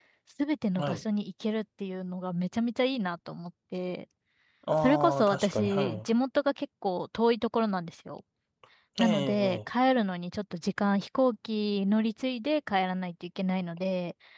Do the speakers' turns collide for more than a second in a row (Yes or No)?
Yes